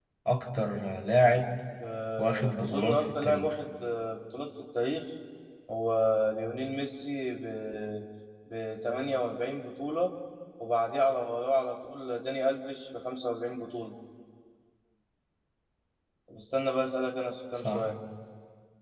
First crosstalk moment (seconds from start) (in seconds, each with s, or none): 2.2 s